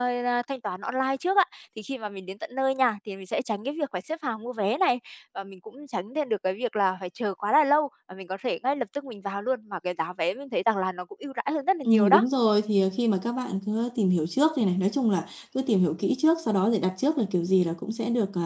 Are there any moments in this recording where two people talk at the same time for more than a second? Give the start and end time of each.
none

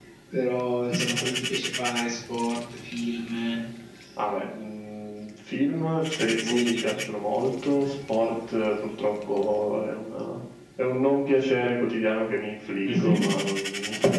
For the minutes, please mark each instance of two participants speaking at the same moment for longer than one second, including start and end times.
none

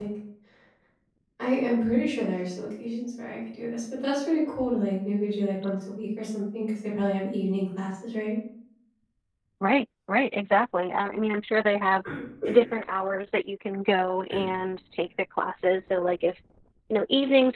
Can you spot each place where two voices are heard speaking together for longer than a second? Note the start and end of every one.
none

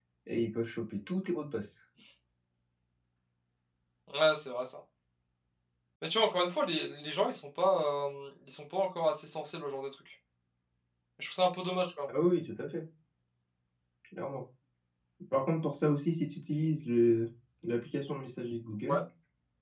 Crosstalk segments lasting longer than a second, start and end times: none

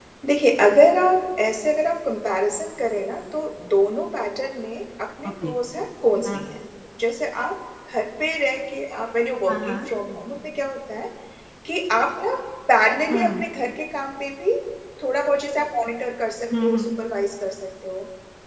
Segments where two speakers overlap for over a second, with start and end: none

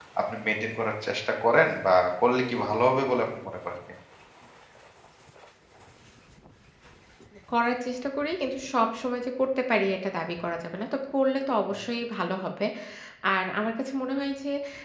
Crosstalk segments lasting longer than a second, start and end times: none

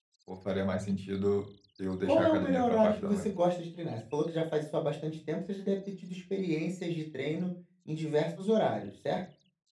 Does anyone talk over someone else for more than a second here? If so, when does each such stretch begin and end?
2.0-3.3

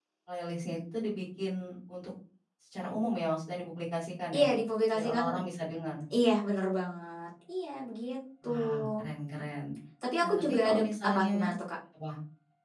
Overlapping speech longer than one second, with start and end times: 10.2-11.5

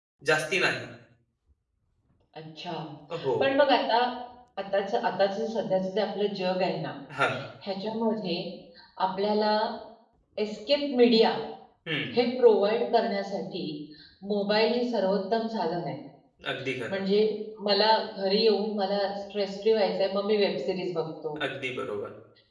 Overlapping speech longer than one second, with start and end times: none

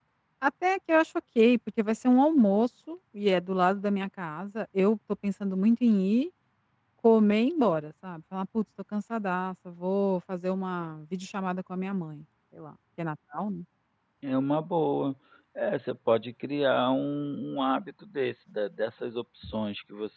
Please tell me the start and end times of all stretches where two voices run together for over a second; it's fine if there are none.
none

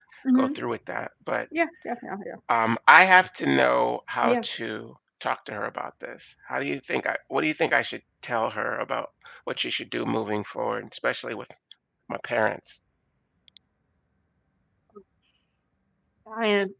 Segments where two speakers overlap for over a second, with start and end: none

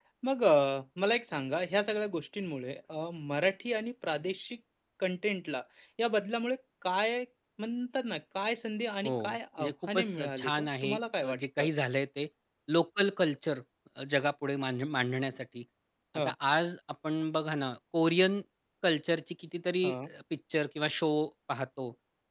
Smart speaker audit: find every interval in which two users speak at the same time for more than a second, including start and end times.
9.0-11.7

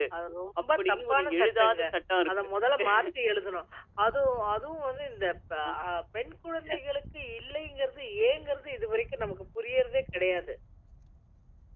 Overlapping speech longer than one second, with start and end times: 0.6-1.8

